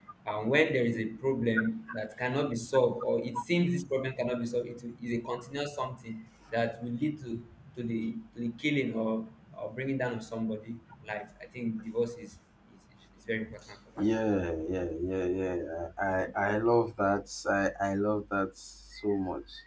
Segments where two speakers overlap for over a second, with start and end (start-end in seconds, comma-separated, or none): none